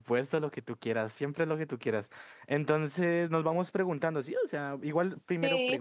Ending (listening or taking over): listening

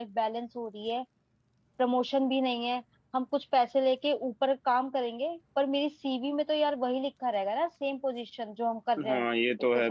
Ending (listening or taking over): taking over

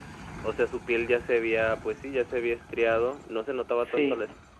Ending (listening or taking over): listening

